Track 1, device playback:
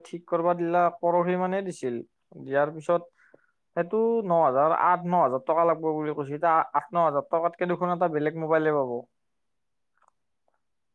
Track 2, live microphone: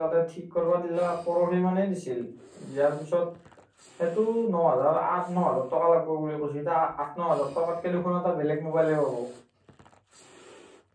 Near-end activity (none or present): none